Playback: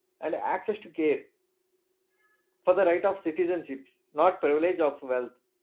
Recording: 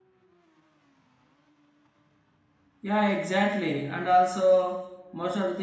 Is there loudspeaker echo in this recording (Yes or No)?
No